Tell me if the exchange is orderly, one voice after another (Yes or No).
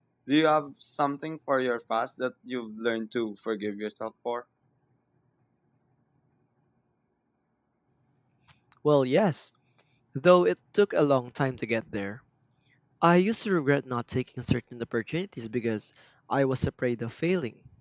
Yes